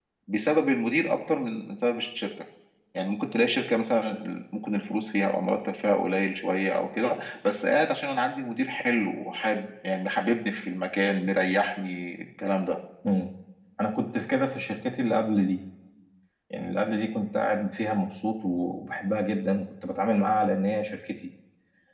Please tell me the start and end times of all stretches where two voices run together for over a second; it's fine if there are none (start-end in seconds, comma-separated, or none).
none